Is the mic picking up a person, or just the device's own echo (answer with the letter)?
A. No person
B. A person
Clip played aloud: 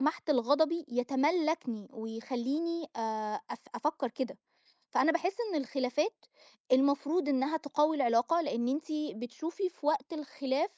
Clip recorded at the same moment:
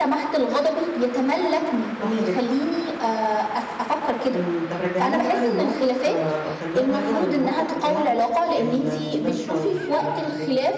B